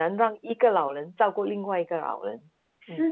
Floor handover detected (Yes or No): Yes